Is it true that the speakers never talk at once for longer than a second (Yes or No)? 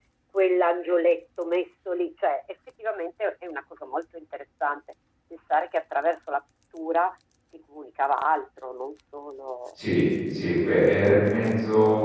Yes